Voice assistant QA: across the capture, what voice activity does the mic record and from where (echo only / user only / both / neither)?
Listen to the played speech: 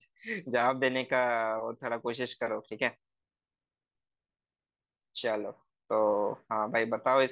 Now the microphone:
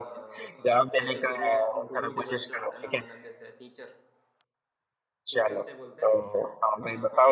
both